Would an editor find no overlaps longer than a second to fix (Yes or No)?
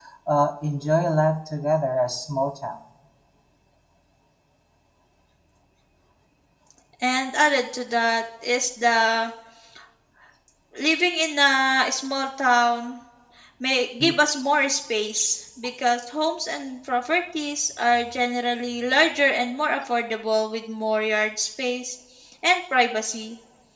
Yes